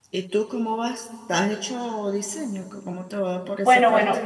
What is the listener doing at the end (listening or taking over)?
taking over